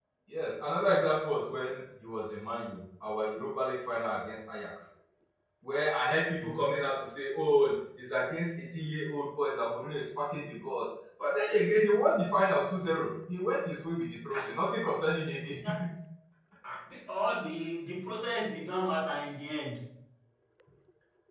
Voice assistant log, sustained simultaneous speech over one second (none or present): none